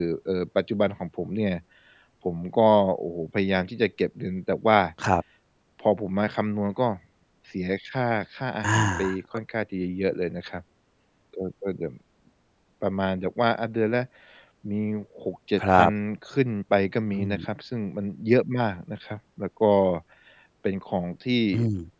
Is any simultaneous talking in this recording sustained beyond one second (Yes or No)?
No